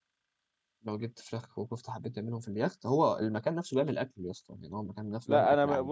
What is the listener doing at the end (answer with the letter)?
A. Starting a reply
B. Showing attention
A